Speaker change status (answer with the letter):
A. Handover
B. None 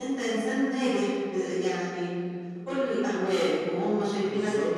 B